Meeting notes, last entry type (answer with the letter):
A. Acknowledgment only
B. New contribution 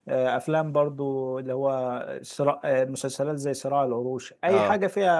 A